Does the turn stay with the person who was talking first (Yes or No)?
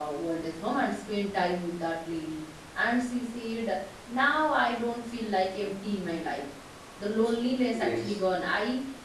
Yes